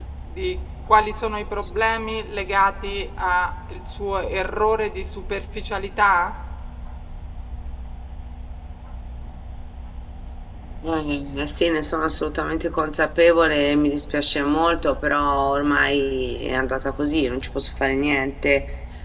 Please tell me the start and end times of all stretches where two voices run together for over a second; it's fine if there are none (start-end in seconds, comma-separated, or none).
none